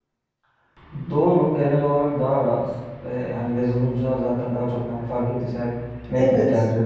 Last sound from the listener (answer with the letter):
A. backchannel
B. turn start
A